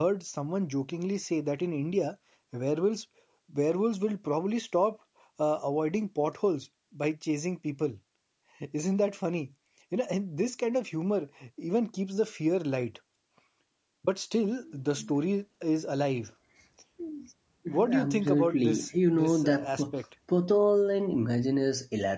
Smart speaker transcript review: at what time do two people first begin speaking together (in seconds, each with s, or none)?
17.9 s